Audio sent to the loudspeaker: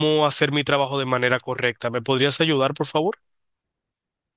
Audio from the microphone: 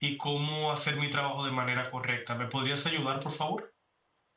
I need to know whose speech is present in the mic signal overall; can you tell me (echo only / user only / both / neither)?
echo only